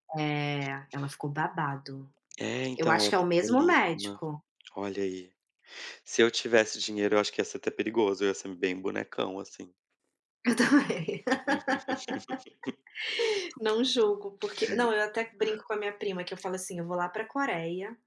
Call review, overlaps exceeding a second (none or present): present